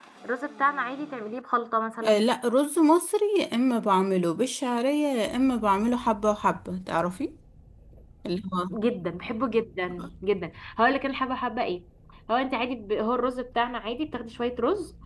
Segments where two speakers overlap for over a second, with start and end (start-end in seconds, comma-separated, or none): none